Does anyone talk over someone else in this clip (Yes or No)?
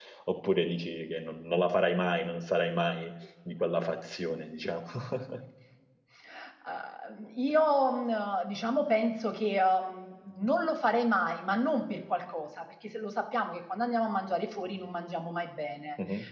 No